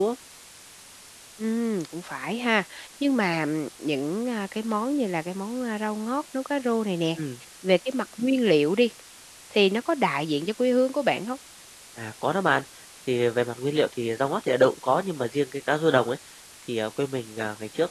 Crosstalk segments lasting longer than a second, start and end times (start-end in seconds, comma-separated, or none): none